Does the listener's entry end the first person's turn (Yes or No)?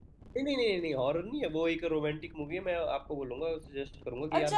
Yes